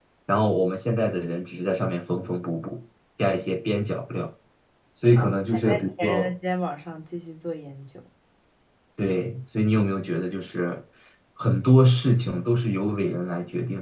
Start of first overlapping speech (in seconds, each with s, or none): 5.0 s